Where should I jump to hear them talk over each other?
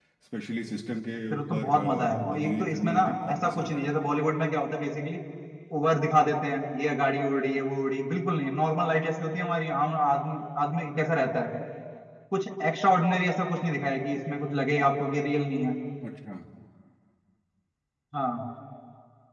1 s

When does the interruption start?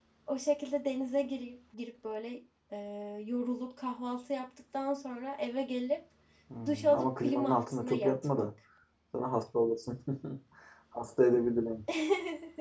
7 s

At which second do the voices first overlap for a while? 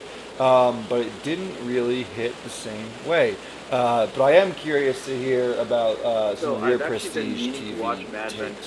6 s

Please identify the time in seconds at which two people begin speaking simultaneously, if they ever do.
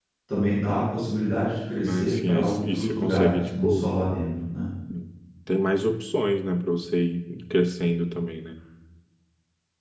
2 s

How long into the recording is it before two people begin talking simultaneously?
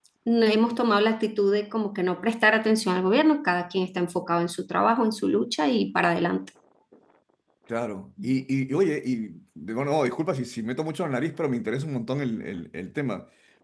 none

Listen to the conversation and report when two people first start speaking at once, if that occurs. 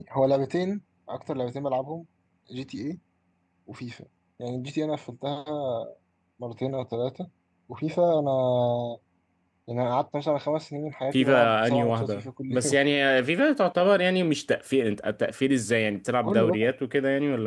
11 s

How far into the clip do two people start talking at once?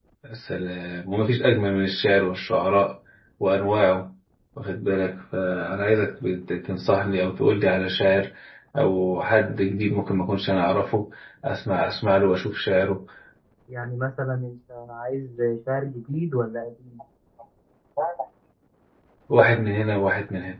none

